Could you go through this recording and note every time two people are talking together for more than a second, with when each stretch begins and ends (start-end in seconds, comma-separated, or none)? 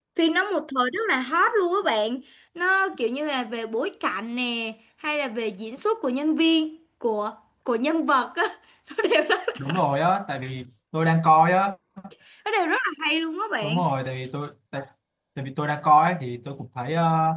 none